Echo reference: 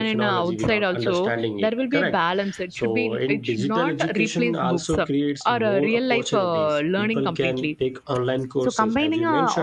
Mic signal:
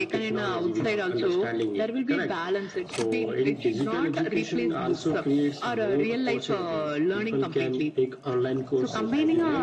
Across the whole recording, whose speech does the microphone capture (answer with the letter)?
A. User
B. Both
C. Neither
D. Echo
D